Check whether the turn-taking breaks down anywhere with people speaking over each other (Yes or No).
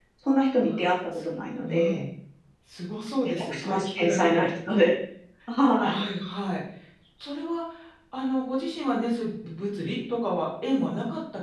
Yes